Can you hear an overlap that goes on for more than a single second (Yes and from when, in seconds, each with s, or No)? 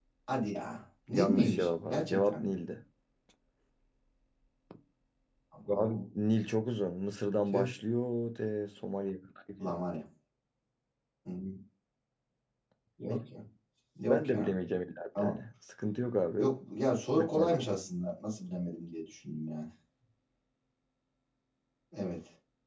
Yes, from 1.1 s